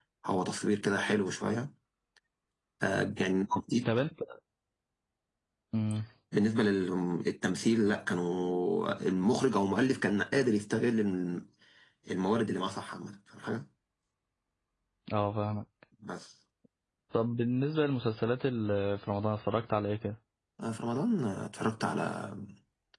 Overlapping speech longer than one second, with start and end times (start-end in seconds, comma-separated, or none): none